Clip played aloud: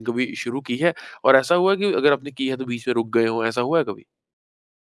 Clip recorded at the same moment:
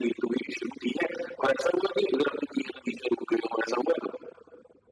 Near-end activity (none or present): none